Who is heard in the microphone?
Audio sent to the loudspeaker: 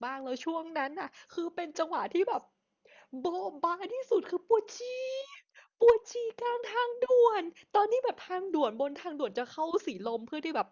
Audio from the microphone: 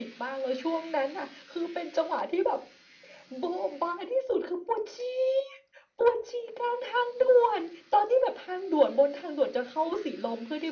echo only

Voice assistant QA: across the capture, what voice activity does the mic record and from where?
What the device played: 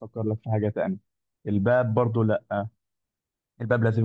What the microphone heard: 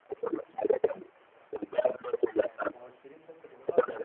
both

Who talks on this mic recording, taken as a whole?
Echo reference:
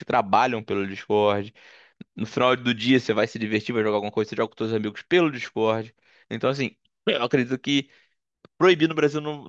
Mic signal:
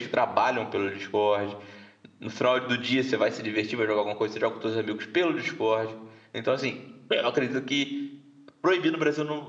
echo only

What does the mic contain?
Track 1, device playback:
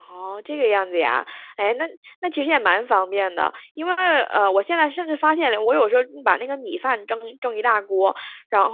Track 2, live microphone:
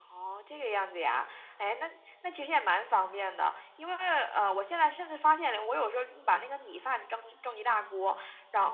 echo only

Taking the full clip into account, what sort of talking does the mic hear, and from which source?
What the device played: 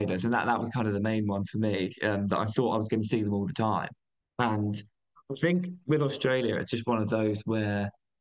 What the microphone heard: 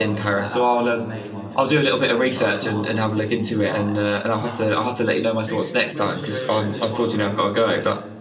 both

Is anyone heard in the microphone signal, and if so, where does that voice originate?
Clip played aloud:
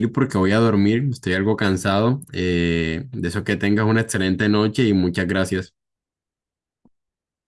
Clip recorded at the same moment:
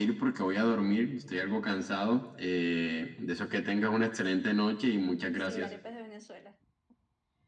both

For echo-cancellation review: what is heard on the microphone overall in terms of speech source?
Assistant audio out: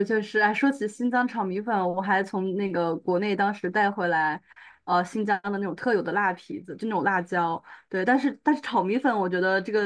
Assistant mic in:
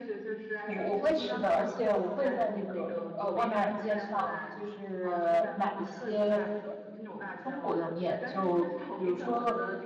both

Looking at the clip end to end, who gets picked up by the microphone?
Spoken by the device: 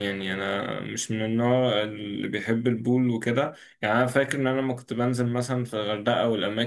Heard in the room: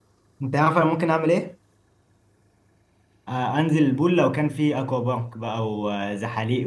user only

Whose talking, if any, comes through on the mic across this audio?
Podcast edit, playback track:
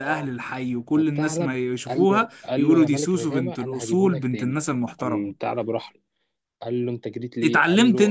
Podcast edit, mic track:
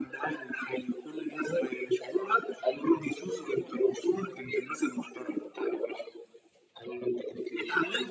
echo only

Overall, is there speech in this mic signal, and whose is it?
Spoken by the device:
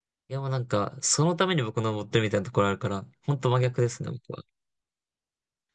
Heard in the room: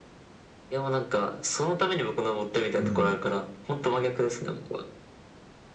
both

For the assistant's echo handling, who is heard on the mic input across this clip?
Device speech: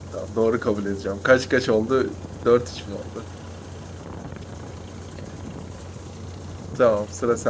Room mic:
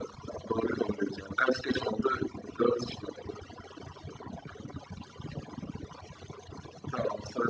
echo only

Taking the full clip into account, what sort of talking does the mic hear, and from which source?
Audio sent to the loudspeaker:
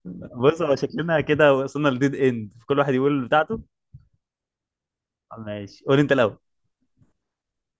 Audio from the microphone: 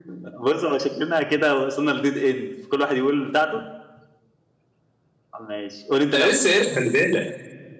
both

